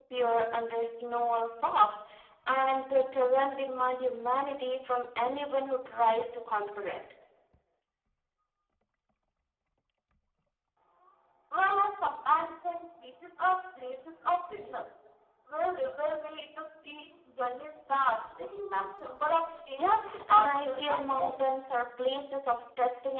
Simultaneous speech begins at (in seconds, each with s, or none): 19.8 s